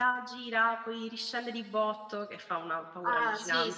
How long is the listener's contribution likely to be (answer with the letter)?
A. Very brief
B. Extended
B